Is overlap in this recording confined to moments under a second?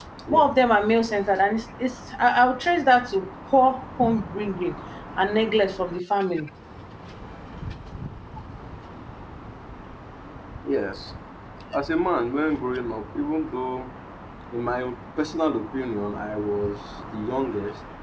Yes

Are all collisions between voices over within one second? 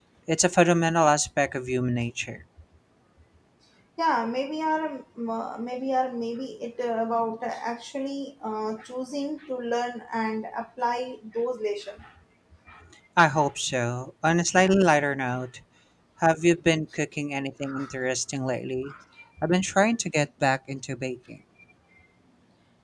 Yes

